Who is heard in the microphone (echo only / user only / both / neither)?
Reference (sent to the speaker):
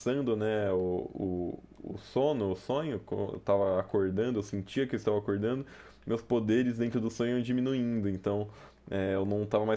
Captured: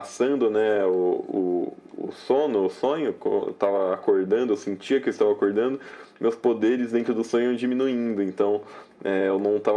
echo only